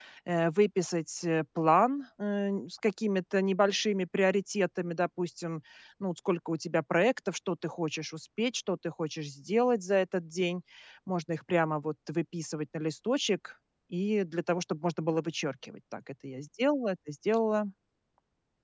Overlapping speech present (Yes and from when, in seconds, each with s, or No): No